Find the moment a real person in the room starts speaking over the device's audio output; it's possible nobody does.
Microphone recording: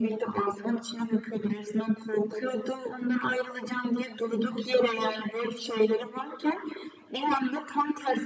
none

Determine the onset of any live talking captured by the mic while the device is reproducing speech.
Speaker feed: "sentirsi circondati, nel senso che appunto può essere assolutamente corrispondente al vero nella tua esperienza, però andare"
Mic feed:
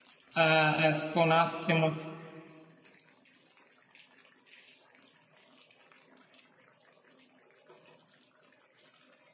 0.3 s

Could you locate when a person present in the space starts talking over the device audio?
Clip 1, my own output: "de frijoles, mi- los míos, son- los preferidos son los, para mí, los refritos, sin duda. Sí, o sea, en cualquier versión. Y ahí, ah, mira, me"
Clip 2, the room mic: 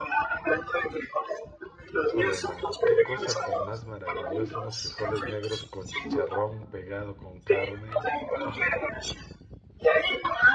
2.0 s

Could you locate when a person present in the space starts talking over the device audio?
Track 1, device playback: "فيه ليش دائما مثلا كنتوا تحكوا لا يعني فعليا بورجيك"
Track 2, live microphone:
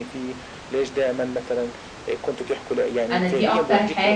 3.1 s

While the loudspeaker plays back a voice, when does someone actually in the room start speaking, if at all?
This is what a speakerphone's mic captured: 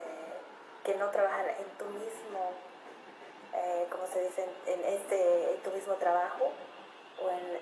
none

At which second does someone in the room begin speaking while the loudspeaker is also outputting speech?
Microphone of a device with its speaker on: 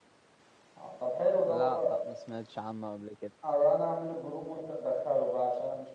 1.4 s

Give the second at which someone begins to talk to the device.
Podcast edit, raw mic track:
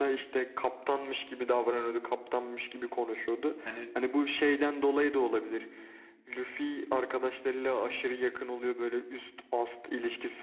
3.6 s

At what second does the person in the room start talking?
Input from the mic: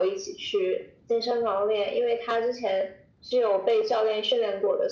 none

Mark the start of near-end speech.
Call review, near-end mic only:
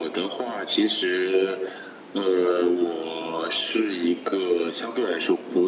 none

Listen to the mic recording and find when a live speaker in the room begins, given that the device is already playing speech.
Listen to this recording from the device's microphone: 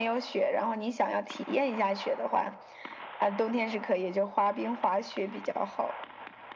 none

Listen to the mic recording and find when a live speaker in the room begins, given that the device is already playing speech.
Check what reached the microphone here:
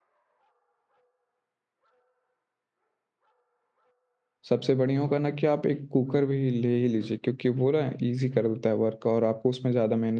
4.5 s

